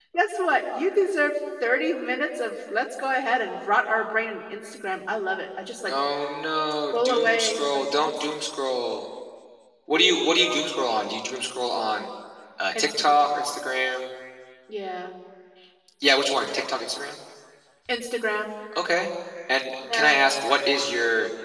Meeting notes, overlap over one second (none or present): present